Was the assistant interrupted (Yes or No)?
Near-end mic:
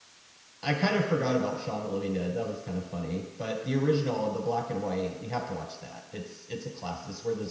Yes